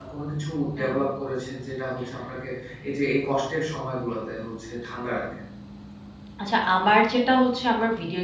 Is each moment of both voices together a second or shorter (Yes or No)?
Yes